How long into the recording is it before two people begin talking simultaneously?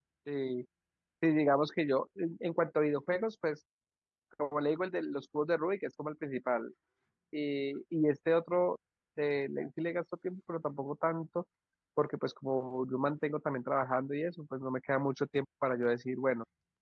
none

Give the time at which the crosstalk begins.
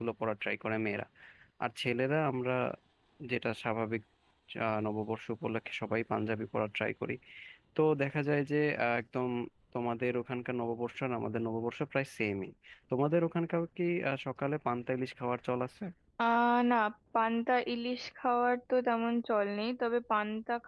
none

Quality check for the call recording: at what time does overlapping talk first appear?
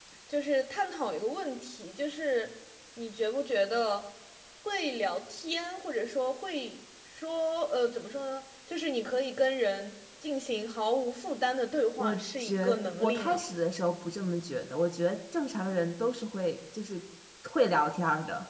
12.0 s

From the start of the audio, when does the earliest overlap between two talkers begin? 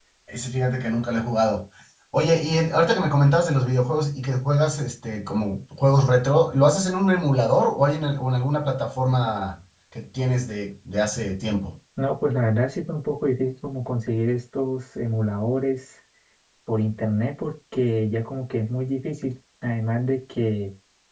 none

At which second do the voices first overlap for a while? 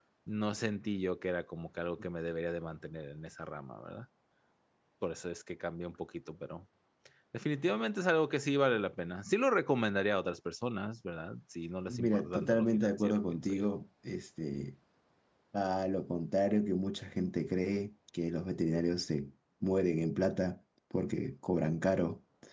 11.9 s

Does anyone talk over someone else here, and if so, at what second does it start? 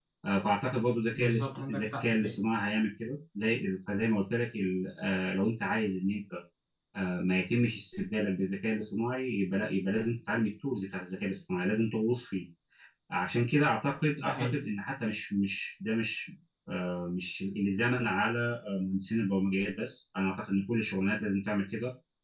1.1 s

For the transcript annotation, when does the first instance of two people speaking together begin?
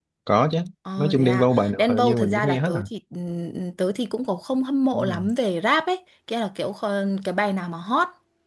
1.0 s

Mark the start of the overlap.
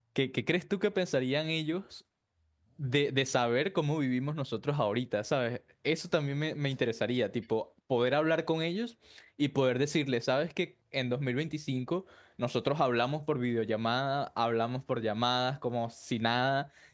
none

